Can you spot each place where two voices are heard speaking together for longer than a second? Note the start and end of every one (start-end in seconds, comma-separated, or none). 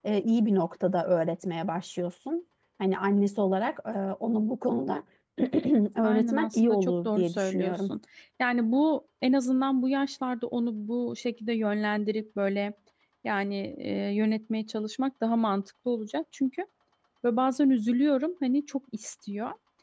6.0-7.9